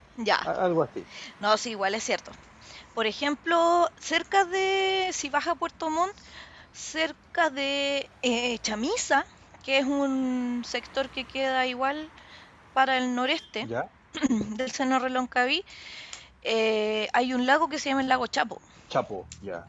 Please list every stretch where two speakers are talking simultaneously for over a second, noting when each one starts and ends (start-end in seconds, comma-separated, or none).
none